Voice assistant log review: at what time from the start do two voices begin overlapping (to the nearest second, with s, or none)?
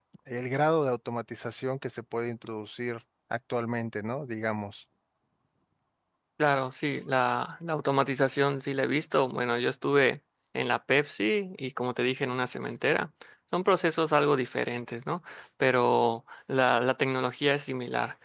none